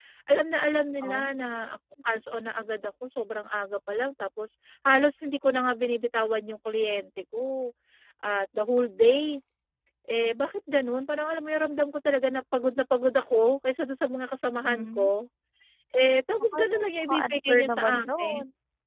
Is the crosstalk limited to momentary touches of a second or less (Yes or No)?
No